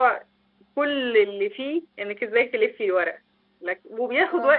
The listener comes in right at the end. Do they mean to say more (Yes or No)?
No